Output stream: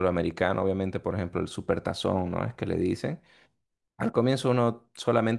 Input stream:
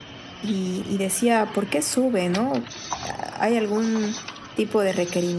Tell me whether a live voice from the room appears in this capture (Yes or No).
Yes